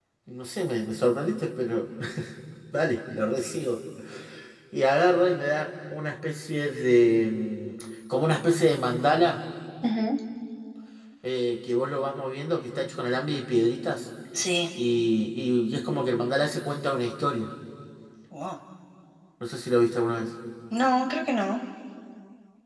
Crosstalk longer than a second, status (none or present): none